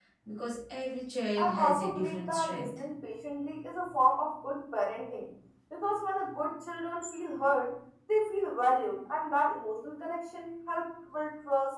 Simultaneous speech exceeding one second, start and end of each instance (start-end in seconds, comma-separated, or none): 1.4-2.8